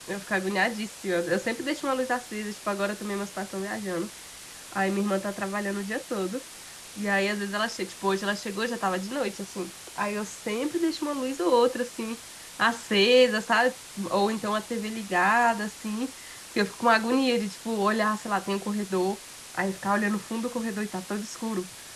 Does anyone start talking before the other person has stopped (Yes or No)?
No